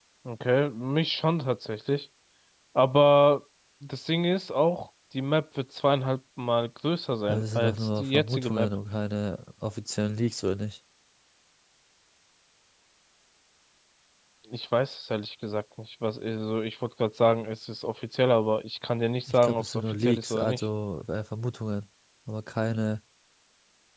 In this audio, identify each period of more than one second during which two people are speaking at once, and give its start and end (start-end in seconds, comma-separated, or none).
7.3-8.7, 19.3-20.6